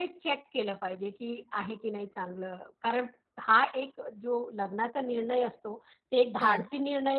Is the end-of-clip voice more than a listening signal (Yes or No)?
No